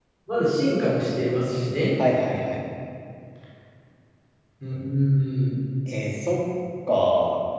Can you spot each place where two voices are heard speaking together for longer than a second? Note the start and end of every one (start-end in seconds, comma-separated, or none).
none